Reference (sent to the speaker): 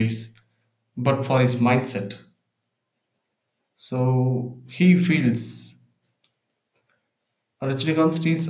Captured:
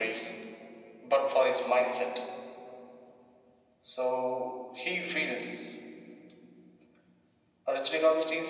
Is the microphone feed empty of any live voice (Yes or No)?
Yes